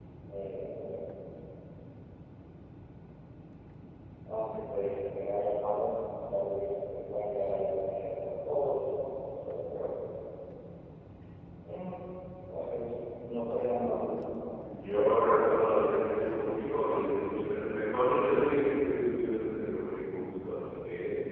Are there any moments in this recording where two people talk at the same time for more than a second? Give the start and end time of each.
14.8-16.1

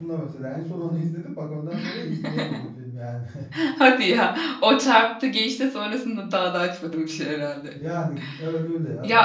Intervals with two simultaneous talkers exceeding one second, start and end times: none

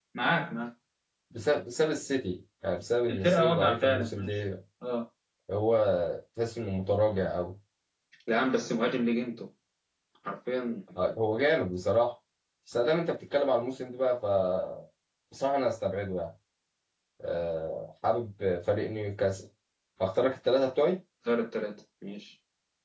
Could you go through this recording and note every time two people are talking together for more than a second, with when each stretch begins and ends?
3.1-4.4

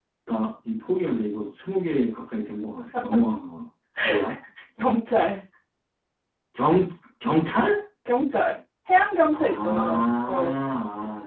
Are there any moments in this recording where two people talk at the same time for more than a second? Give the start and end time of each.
9.3-10.6

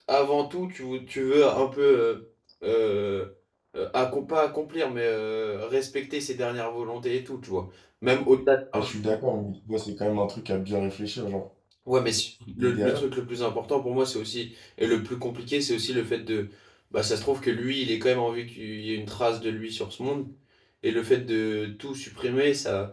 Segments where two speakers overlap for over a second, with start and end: none

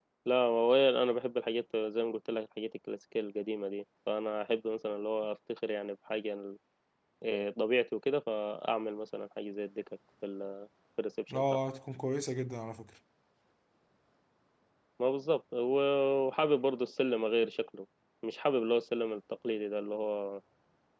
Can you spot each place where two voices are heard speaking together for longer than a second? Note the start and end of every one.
none

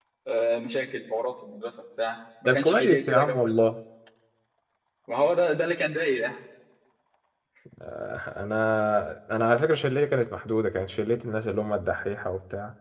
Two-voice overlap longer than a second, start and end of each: 2.5-3.7

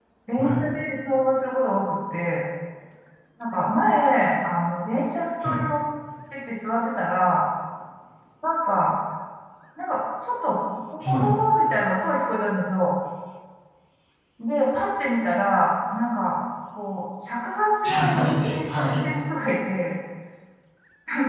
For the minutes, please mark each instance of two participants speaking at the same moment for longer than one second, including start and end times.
17.8-19.1

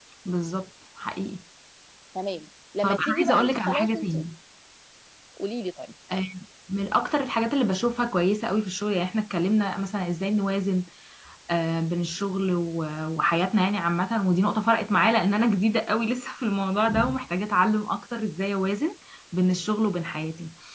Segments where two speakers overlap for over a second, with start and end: 2.8-4.2

